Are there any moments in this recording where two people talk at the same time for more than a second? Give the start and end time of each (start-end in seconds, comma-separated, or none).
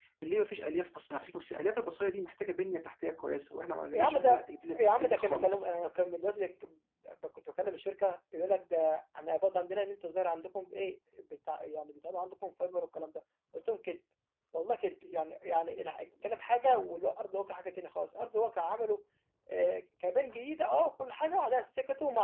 3.9-5.7